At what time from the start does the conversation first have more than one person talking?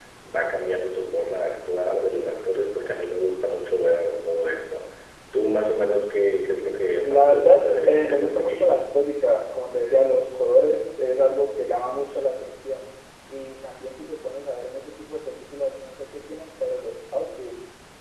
7.0 s

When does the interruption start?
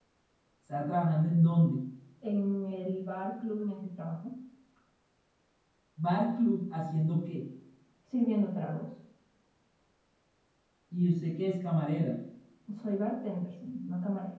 none

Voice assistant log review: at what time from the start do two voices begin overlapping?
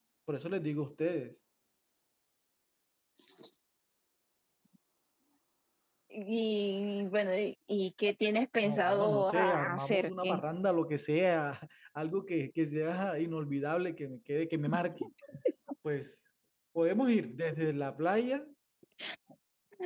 8.6 s

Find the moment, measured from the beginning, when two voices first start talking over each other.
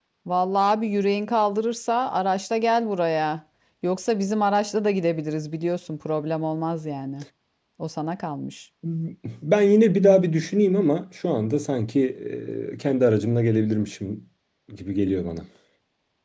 none

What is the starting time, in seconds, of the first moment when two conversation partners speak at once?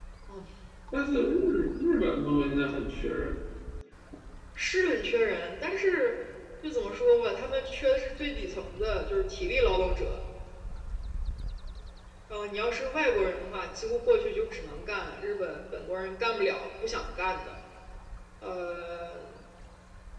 none

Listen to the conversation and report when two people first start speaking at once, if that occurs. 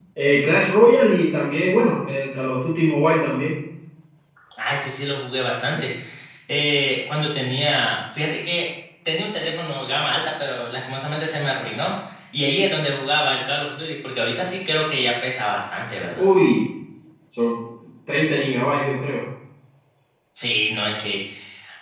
none

